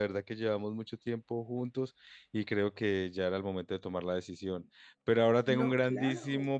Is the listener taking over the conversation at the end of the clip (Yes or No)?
No